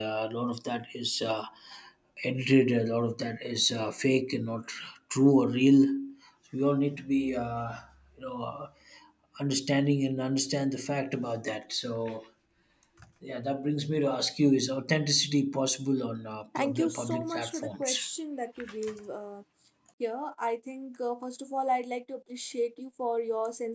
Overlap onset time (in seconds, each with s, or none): 16.6 s